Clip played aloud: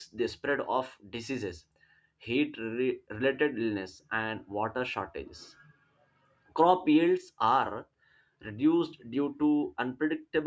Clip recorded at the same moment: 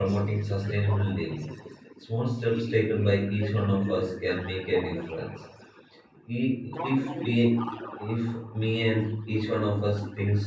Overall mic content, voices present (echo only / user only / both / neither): both